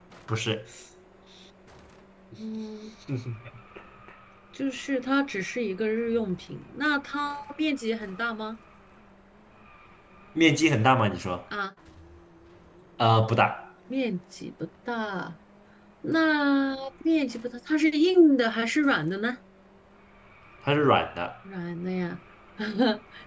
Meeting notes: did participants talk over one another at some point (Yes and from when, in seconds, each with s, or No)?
No